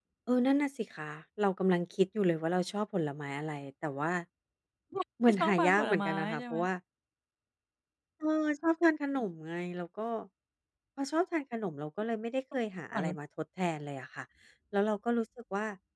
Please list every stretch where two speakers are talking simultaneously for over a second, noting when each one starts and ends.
5.3-6.6

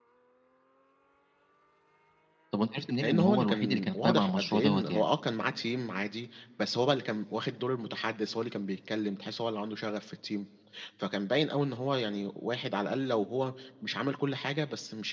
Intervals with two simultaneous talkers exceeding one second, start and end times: 3.0-5.0

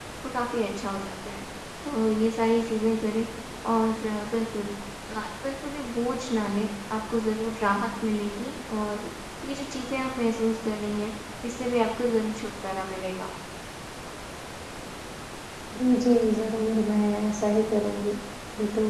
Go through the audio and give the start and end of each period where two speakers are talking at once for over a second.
none

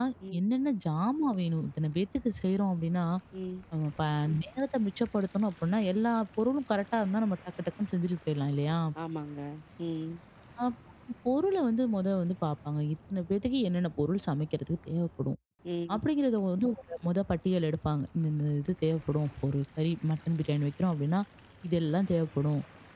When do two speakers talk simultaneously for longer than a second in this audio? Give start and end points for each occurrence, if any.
none

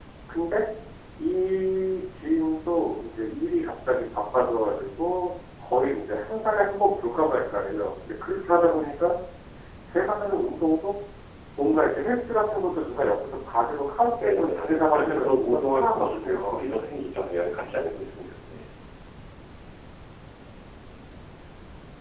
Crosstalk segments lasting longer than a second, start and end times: 14.2-16.6

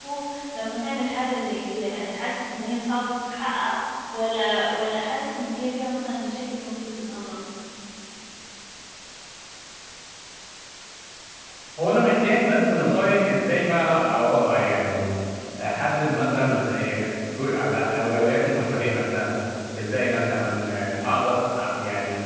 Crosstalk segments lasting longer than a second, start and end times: none

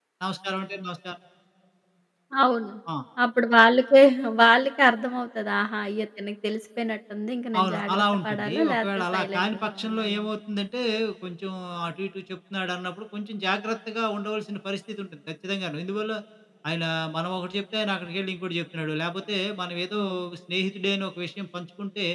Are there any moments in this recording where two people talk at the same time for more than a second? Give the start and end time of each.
7.6-10.1

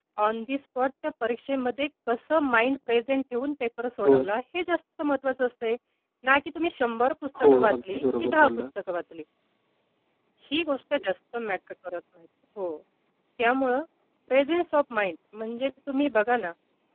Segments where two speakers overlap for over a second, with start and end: 7.4-8.7

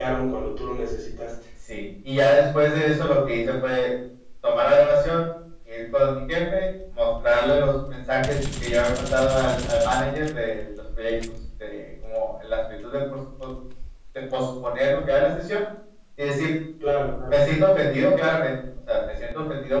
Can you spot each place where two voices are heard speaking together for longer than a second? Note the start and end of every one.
none

